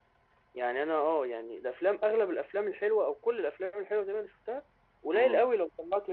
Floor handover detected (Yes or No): No